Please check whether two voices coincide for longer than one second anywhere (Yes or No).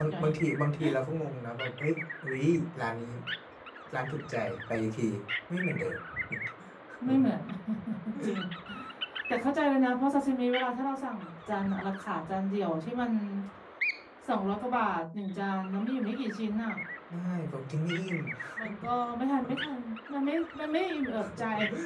No